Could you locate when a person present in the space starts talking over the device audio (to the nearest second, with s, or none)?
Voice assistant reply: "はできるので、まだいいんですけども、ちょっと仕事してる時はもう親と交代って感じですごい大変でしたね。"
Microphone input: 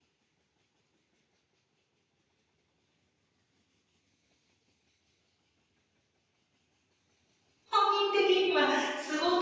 8 s